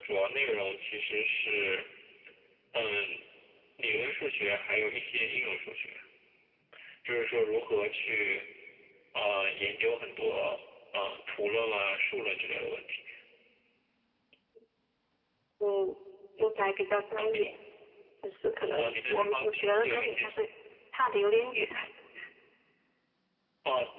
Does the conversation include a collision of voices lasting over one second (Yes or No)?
Yes